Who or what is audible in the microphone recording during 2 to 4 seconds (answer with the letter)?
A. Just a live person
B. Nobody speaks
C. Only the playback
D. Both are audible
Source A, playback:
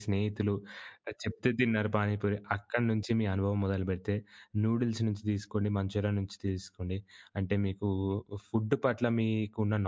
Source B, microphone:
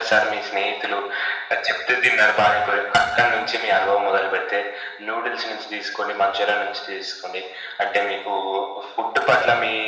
C